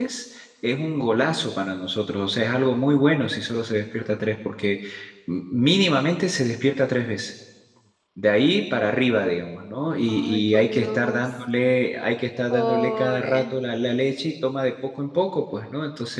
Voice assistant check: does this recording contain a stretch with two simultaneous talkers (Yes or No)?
Yes